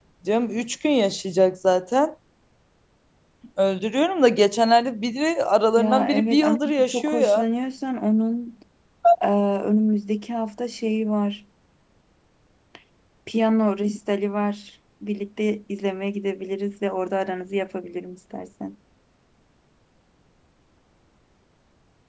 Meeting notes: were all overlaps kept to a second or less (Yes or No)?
No